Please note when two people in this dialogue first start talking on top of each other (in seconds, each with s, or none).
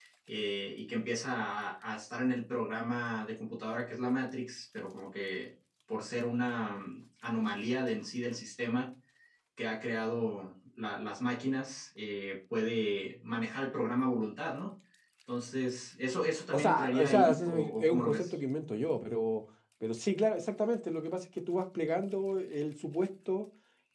16.5 s